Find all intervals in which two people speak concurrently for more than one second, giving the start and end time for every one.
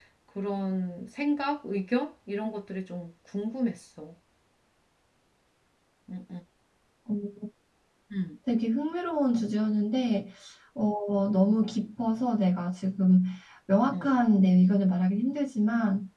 none

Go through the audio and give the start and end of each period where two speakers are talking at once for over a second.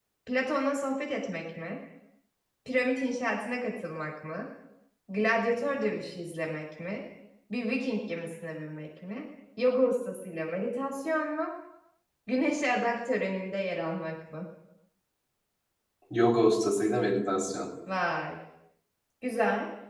none

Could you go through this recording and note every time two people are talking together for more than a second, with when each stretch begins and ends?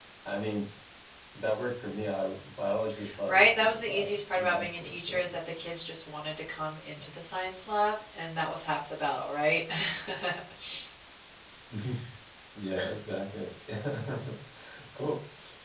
3.3-5.3

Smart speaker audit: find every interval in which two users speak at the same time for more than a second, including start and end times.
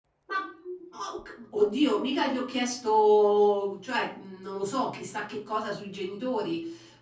none

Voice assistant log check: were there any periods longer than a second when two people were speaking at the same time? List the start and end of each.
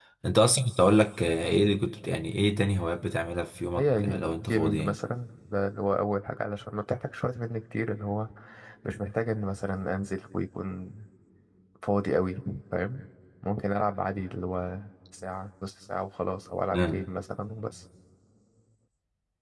3.8-5.0

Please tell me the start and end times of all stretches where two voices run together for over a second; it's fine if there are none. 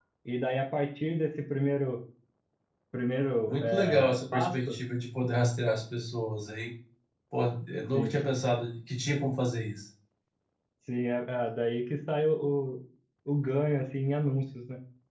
3.5-4.8

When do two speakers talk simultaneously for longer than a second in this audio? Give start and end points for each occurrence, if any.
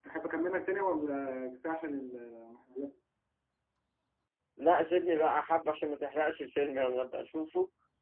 none

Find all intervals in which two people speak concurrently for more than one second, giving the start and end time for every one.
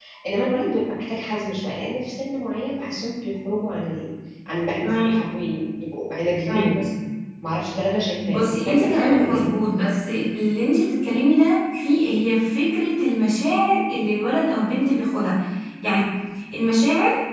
8.3-9.5

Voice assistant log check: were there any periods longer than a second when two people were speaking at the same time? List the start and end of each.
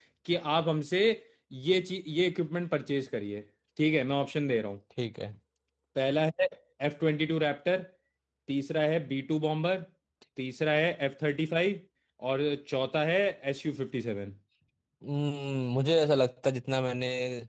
none

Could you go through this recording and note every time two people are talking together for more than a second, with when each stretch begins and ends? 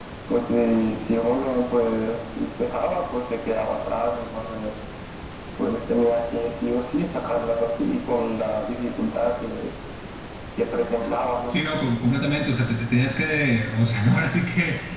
none

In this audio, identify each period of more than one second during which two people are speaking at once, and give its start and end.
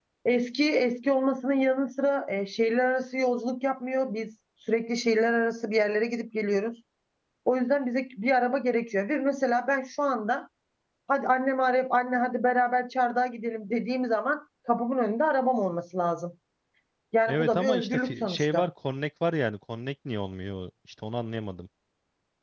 17.3-18.7

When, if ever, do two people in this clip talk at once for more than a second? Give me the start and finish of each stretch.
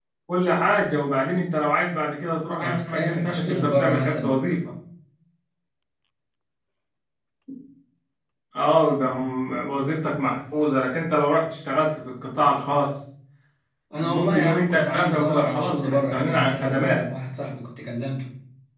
2.6-4.3, 14.0-17.1

